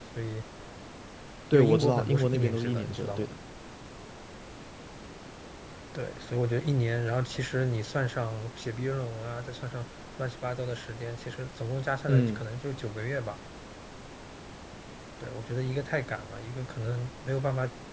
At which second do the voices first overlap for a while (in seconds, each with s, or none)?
1.5 s